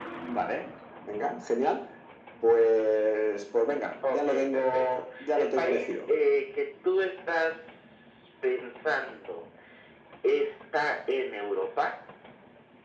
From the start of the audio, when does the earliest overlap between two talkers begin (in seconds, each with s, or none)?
4.0 s